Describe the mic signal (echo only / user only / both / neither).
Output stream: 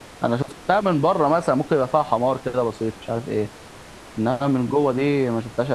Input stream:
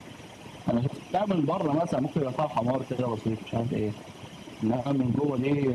echo only